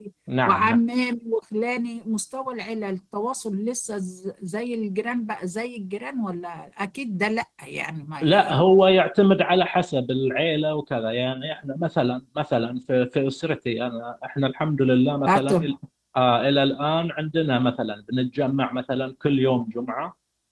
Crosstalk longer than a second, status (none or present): none